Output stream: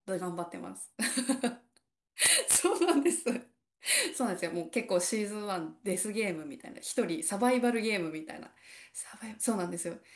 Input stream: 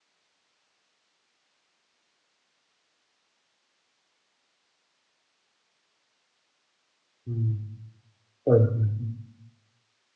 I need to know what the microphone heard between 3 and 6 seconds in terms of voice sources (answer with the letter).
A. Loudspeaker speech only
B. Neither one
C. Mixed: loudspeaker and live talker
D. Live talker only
B